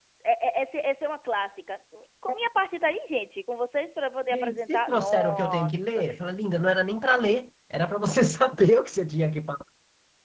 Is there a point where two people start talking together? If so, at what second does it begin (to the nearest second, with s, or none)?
4 s